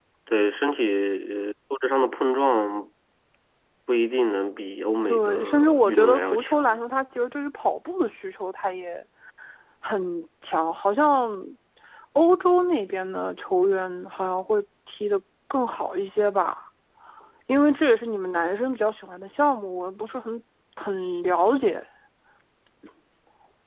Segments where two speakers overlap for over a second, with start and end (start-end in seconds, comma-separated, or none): 5.0-6.8